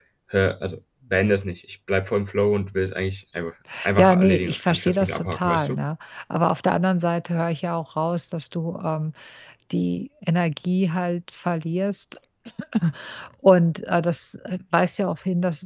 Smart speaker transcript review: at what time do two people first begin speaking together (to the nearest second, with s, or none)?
4 s